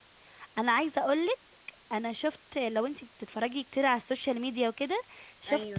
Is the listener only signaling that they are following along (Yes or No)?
Yes